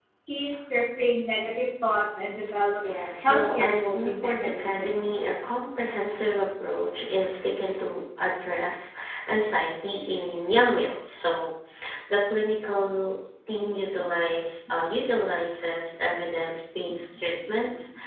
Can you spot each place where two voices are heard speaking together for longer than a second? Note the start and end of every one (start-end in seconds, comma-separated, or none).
3.2-5.2